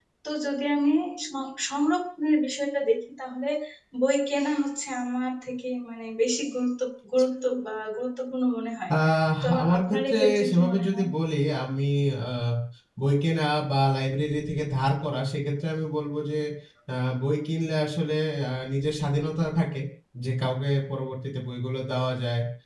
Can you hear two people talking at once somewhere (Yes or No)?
Yes